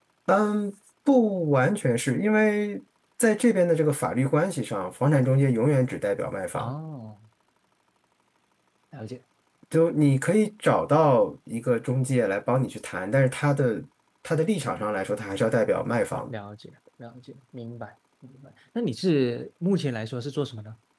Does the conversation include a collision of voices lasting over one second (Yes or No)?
No